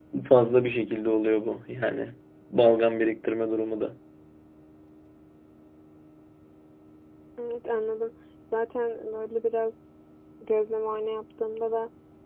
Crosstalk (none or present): none